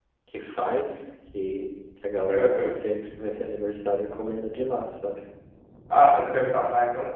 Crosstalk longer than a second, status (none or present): none